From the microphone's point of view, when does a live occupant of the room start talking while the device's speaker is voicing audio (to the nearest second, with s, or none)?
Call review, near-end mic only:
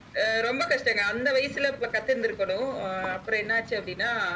none